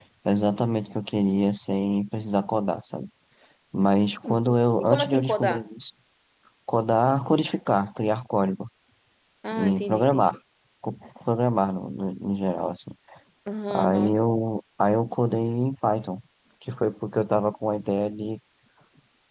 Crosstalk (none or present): present